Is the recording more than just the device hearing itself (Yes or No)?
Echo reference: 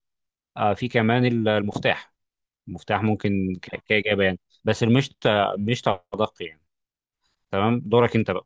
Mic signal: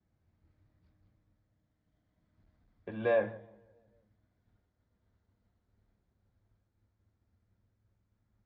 Yes